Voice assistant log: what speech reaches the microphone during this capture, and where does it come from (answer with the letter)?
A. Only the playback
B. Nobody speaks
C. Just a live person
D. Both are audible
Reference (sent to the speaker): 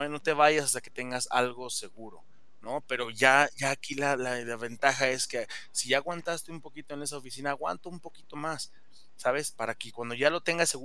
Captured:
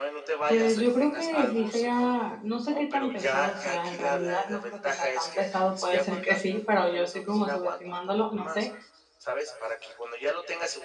D